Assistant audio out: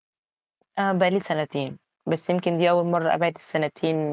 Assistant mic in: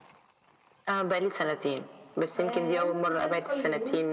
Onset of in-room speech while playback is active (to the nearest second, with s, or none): 2 s